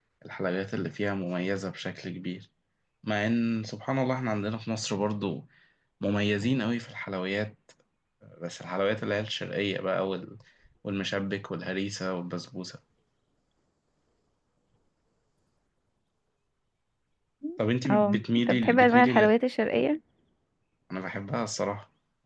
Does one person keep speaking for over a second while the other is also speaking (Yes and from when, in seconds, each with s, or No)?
Yes, from 17.9 s